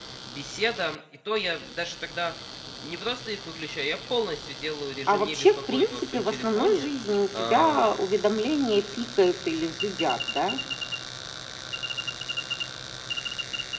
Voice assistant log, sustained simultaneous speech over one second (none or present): present